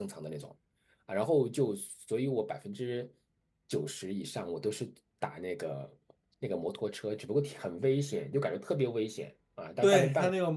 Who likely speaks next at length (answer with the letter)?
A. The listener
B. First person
A